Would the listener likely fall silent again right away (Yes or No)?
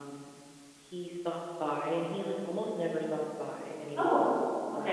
Yes